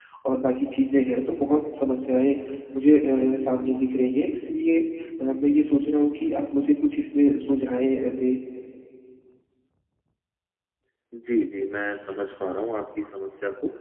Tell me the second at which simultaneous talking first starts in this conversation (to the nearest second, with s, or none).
none